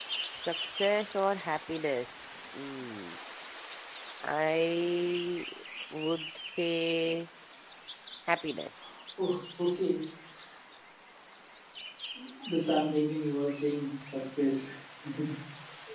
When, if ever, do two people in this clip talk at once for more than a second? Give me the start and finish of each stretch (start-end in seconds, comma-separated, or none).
none